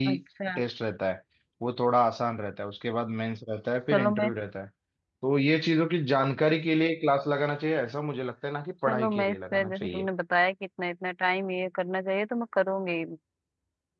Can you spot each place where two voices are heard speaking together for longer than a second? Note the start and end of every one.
8.9-10.1

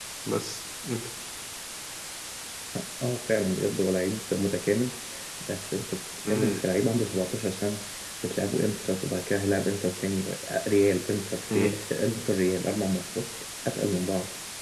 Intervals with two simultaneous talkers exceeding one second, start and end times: none

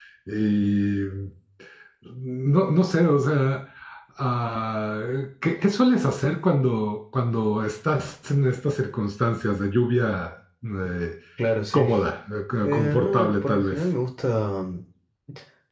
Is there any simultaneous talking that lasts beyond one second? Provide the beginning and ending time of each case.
12.6-13.8

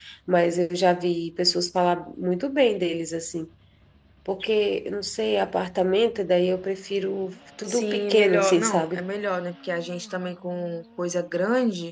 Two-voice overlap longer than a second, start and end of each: 7.7-9.0

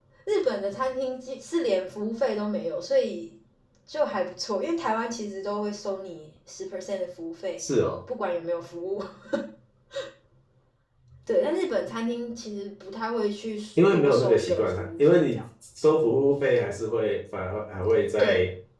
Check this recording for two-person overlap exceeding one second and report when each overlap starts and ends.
13.8-15.4

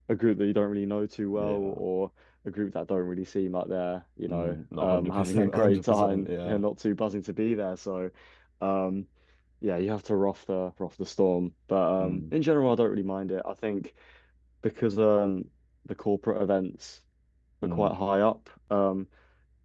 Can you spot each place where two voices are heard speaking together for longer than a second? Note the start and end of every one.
4.3-6.6

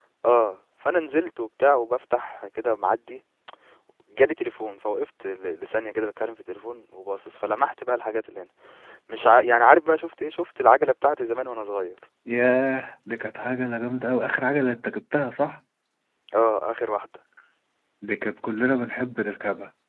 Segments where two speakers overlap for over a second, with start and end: none

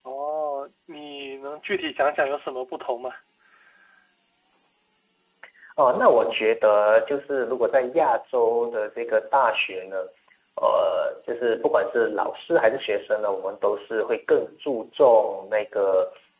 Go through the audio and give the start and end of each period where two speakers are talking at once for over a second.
none

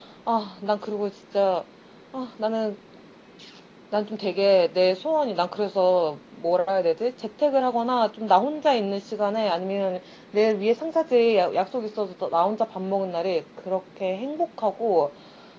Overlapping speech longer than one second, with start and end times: none

